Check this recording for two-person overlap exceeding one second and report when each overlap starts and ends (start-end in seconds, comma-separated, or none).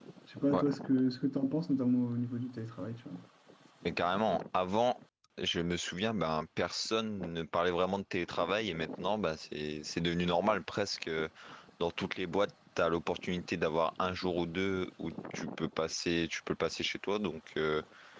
none